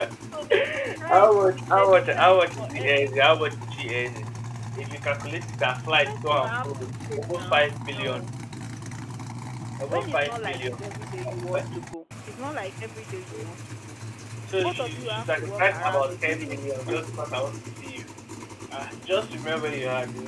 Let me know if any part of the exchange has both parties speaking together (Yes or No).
Yes